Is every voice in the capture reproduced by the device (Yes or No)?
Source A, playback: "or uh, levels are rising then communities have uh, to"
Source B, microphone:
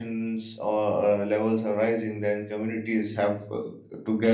Yes